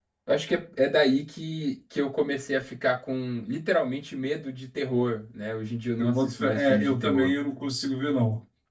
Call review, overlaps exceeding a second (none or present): present